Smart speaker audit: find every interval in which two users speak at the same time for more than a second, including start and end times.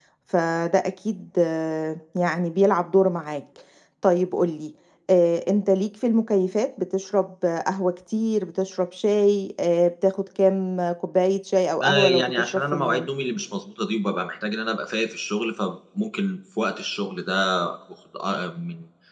11.8-13.1

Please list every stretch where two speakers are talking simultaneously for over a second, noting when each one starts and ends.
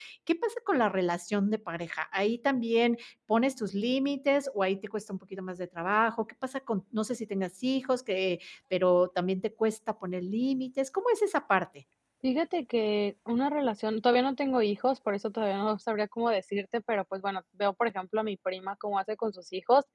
none

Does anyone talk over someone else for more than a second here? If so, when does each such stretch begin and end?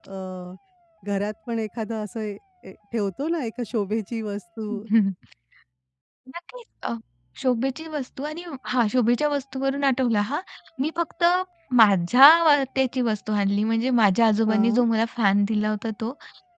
none

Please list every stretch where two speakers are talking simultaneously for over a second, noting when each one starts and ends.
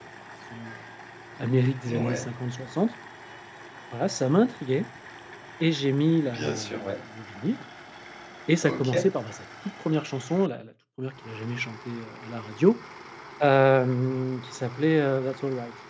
none

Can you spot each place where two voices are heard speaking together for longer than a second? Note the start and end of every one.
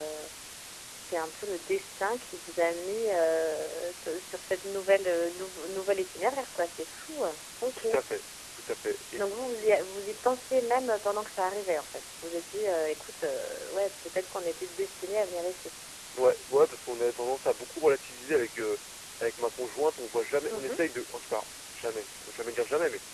none

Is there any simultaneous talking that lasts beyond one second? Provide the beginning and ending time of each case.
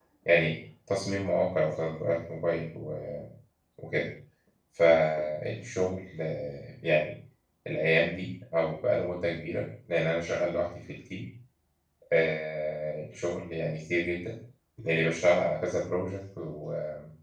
none

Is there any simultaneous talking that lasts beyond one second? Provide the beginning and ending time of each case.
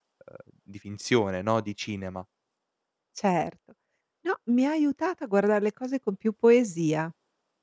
none

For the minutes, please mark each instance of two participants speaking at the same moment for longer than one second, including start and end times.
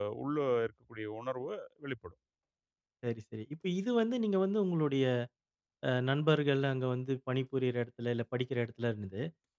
none

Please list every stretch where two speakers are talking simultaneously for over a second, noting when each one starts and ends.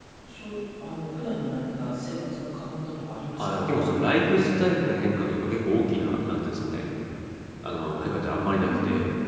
none

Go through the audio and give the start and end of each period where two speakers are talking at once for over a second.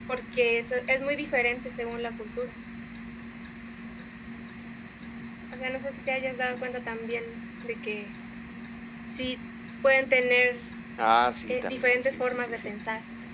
11.5-12.7

